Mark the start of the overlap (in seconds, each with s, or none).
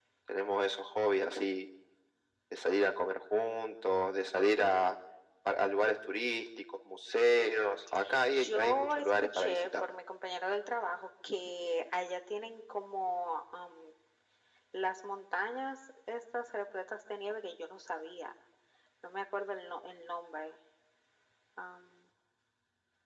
8.4 s